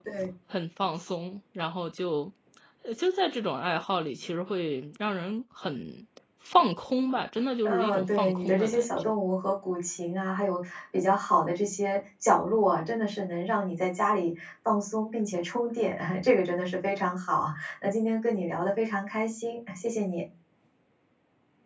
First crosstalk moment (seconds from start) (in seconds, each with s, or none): 7.6 s